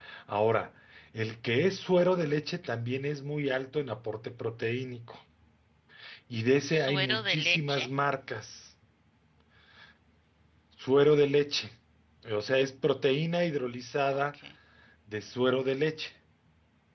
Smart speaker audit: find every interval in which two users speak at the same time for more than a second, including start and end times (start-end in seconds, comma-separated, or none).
6.6-7.9